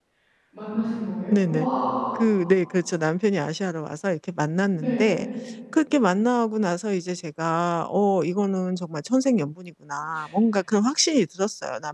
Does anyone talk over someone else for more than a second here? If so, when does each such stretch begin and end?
none

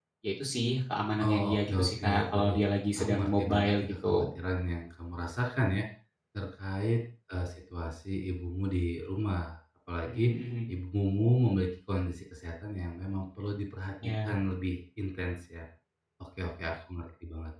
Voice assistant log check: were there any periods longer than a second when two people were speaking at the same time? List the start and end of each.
1.2-2.6, 3.0-4.3

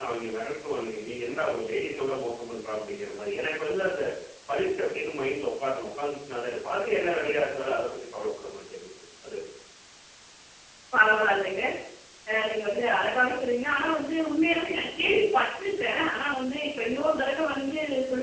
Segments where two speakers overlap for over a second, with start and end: none

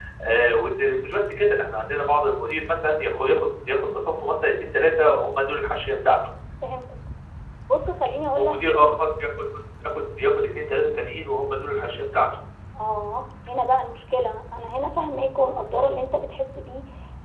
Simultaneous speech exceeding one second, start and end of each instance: none

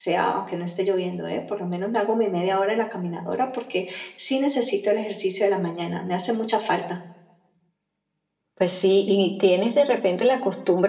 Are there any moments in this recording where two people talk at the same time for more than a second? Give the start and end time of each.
none

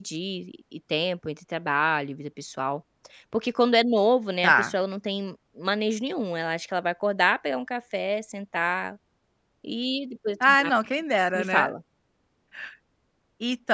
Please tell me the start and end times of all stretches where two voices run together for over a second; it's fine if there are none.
none

